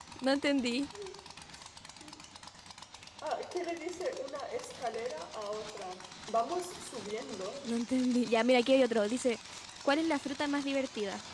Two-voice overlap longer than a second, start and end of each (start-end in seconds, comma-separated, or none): none